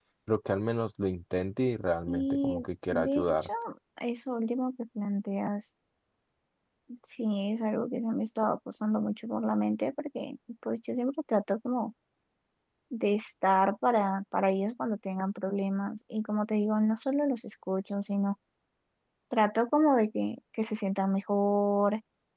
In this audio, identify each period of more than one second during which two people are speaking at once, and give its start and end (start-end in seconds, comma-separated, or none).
2.1-3.5